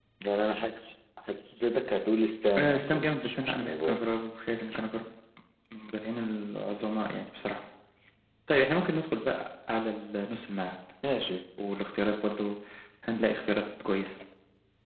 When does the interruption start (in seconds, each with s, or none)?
2.6 s